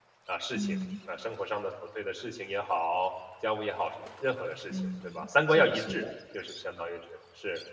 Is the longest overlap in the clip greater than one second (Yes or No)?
Yes